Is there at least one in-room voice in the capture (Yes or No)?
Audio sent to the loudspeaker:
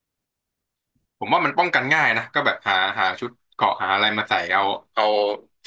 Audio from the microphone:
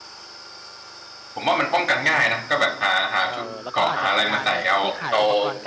Yes